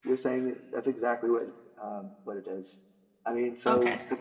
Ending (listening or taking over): listening